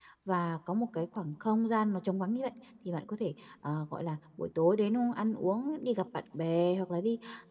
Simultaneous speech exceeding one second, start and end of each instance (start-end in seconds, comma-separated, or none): none